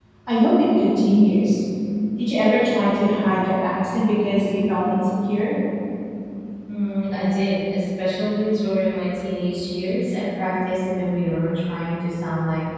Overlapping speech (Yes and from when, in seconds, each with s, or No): No